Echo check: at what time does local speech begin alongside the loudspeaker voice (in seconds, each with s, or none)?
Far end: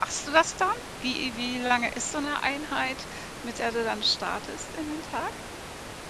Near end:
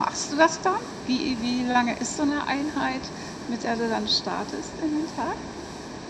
none